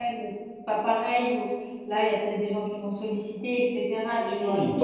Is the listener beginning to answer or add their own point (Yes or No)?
Yes